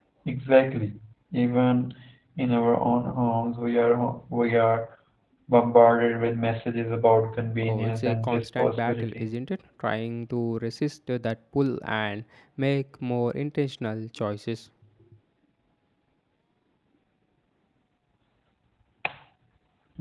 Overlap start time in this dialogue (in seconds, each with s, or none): 7.6 s